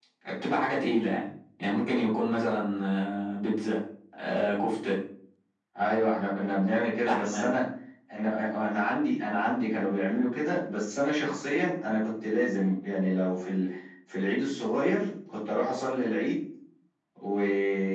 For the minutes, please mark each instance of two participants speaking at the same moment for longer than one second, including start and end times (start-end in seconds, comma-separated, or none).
none